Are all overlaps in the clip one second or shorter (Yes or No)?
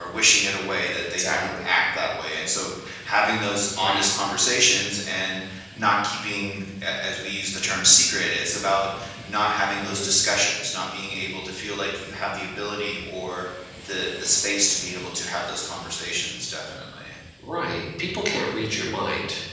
Yes